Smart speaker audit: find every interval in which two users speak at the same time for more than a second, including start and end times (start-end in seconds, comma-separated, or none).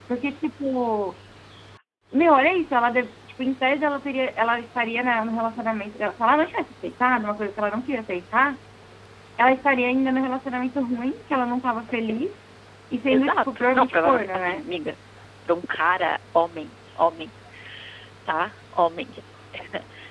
13.1-14.6